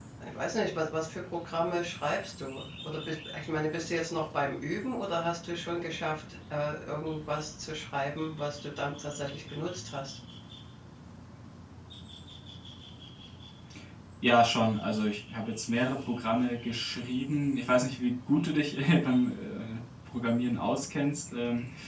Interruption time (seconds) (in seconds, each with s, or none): none